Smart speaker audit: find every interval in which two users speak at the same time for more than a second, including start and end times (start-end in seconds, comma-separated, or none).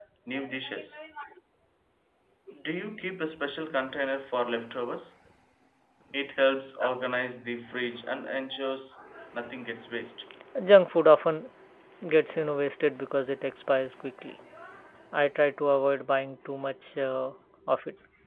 none